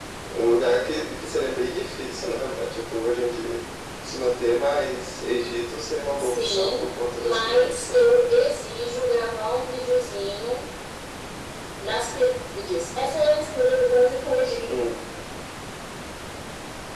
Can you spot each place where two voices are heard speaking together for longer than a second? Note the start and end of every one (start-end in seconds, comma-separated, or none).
6.2-8.2